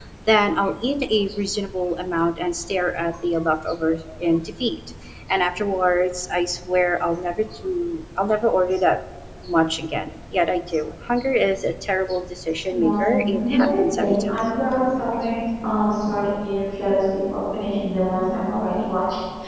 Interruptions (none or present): present